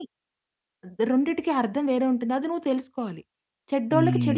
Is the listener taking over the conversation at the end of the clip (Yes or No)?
Yes